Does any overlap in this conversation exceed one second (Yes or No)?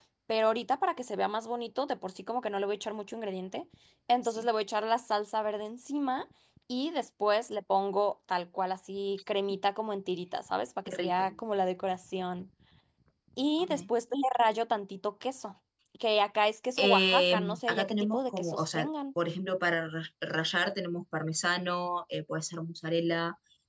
Yes